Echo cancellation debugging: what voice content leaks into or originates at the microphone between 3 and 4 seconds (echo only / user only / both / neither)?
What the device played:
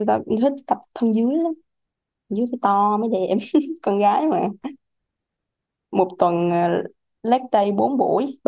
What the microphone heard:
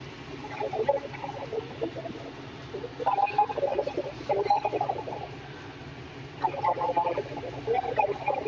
echo only